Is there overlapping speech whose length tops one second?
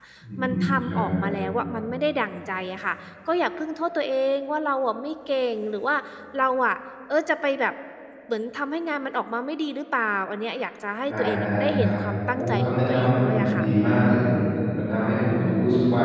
Yes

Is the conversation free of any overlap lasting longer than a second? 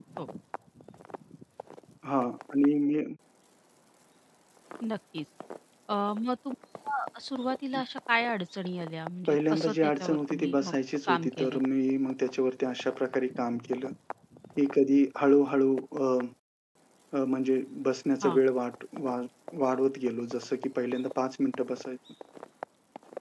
No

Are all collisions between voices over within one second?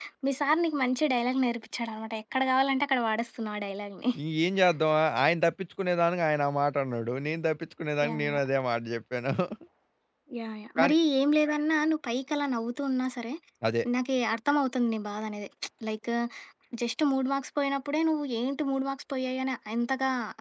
Yes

